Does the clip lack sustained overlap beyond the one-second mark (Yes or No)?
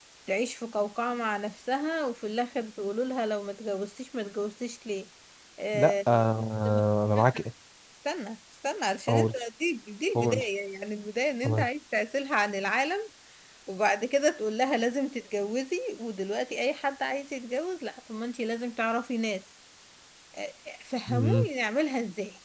Yes